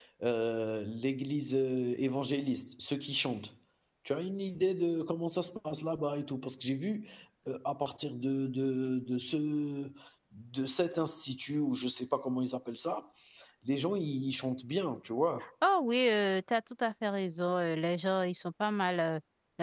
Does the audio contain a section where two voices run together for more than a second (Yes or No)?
No